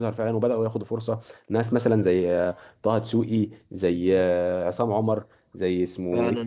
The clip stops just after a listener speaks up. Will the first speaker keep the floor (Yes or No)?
No